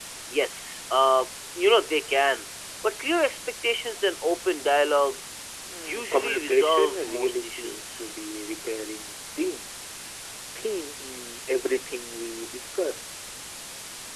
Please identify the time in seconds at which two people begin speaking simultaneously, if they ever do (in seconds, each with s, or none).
5.9 s